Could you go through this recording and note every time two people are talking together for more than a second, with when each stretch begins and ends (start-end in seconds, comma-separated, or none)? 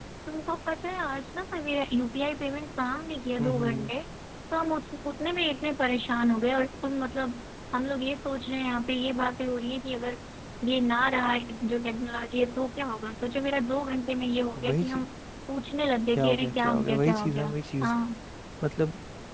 16.2-17.9